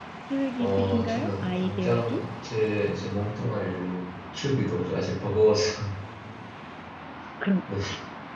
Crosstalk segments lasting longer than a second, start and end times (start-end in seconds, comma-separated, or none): 0.6-2.3